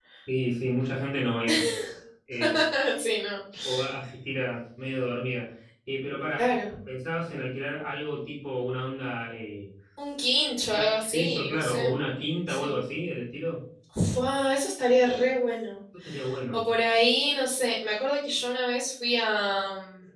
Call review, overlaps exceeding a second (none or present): present